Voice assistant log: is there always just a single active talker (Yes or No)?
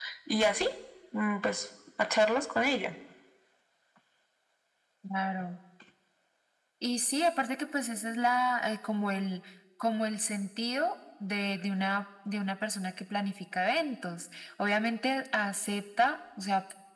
Yes